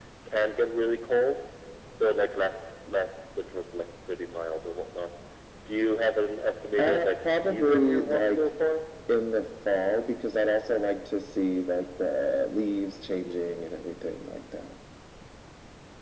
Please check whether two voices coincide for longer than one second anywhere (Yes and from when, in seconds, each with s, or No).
Yes, from 6.8 s